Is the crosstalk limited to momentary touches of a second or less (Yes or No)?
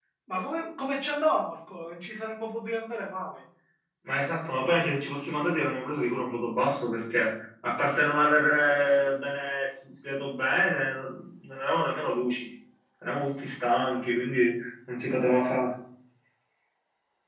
Yes